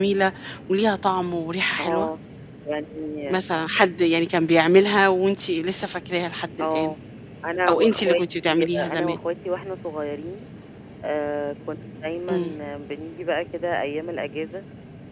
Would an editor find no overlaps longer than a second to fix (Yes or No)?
No